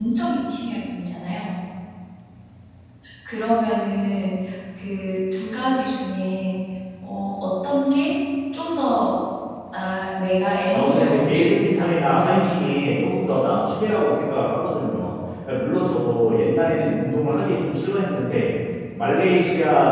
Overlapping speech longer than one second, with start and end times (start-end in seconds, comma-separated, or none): 10.7-12.7